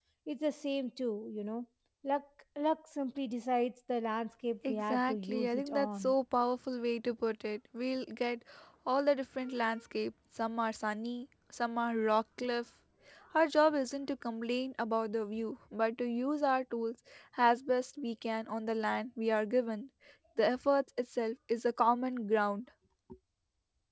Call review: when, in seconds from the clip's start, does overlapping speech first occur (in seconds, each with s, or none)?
4.6 s